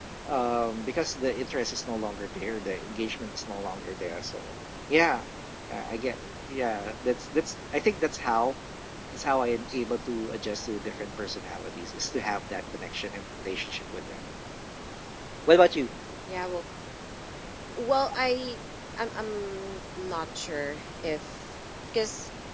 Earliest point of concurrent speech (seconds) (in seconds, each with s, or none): none